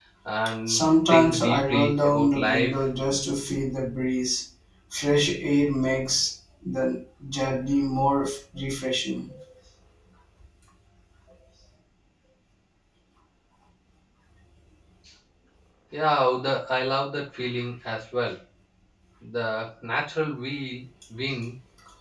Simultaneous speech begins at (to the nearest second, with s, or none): 1 s